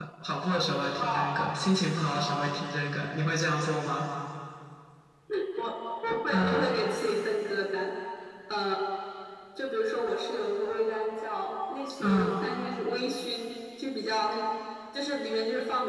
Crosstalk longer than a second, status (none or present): none